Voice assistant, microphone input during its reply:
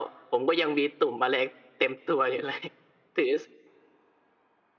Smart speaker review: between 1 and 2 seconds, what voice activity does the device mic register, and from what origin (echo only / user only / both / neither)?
echo only